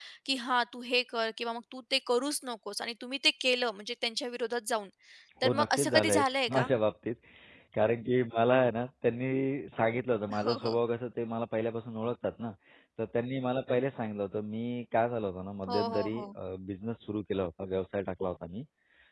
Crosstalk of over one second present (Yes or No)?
Yes